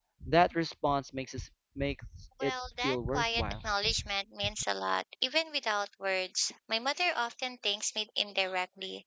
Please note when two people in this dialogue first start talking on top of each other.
2.4 s

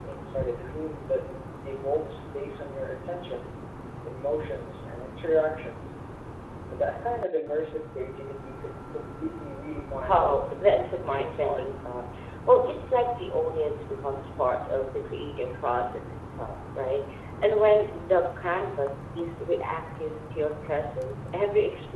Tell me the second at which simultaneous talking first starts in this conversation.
9.9 s

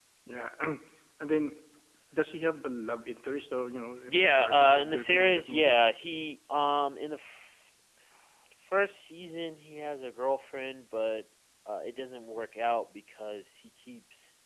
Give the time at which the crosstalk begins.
4.1 s

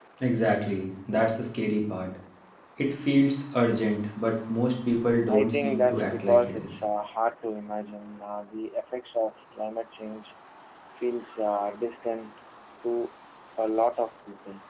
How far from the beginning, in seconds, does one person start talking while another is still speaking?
5.3 s

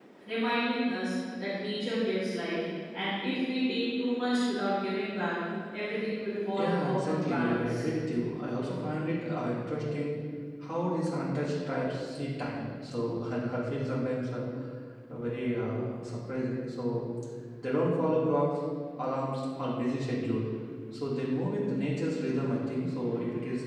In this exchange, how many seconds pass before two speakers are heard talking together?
6.6 s

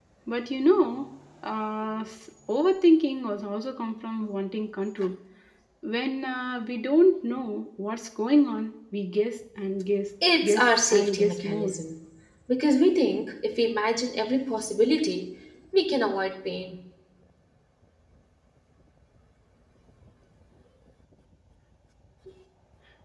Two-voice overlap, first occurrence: 10.2 s

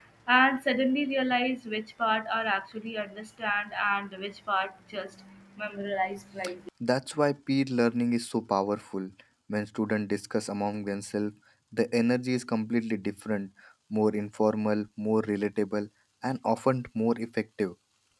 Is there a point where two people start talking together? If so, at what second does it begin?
none

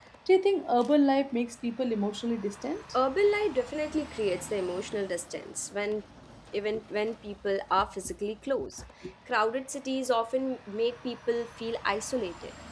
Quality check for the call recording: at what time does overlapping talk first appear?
none

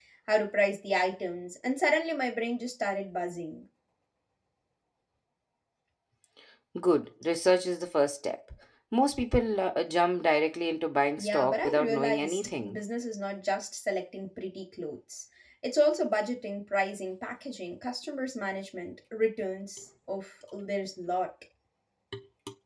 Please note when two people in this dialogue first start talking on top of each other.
11.2 s

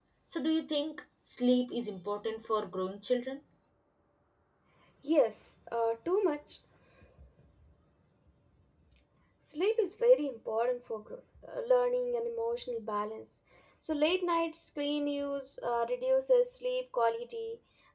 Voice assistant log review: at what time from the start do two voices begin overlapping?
none

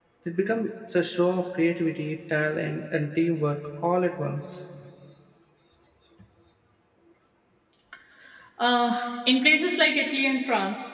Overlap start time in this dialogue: none

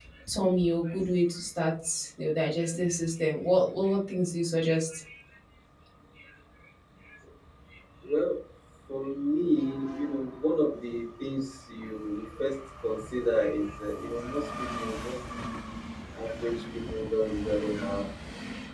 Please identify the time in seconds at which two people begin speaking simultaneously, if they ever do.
none

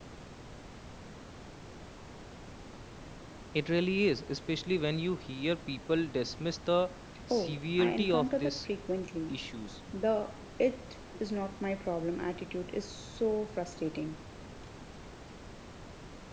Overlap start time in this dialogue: 7.3 s

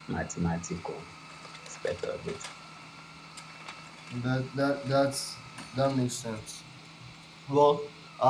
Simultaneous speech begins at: none

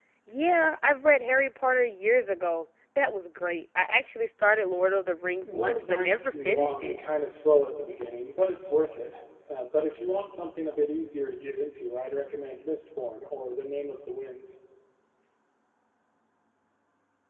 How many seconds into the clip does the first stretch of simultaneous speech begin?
5.4 s

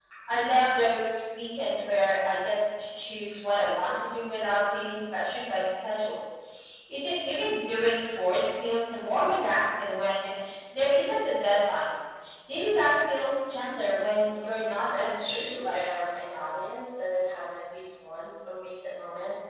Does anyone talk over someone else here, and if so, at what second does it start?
14.2 s

